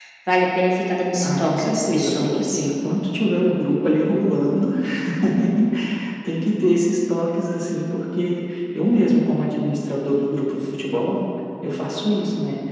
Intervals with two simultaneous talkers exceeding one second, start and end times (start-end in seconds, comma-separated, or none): 1.2-2.6